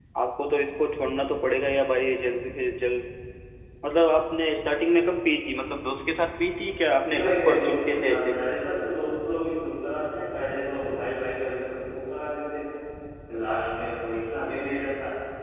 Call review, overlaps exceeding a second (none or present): present